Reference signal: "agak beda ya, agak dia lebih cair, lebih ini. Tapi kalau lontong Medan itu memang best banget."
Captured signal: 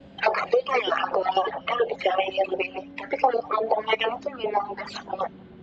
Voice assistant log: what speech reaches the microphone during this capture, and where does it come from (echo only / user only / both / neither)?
echo only